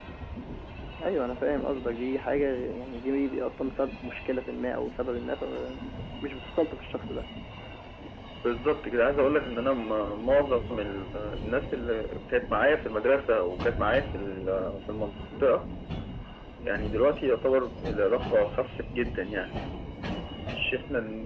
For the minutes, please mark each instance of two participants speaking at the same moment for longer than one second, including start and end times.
none

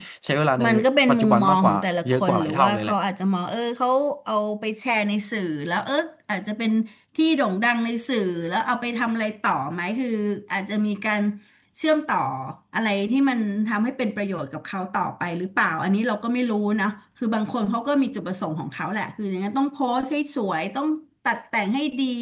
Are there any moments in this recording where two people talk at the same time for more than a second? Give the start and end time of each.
1.1-3.0

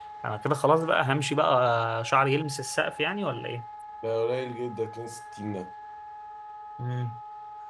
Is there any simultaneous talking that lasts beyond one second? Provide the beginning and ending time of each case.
none

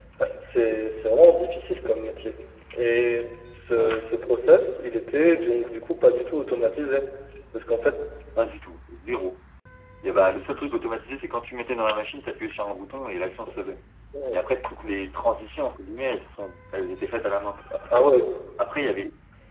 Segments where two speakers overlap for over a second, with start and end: none

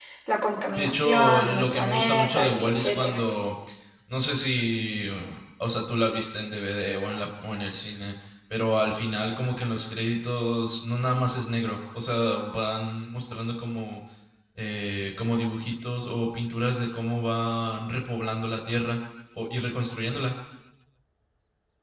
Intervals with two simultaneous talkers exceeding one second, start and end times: 0.8-3.2

